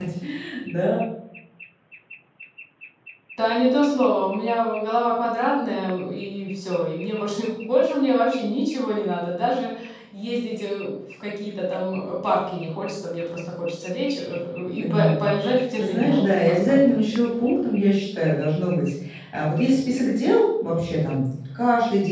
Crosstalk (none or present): present